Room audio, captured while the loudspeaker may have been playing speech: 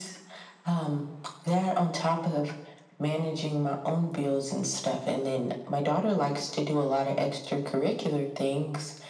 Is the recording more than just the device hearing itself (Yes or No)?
No